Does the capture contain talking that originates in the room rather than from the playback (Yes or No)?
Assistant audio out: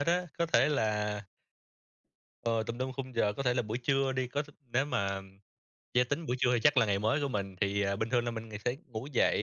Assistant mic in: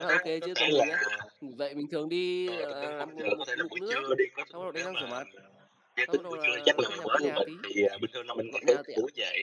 Yes